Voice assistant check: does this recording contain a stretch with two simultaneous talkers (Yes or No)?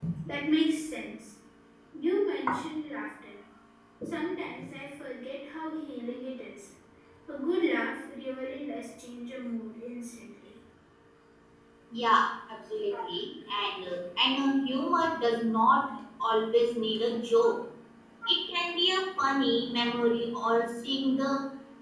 No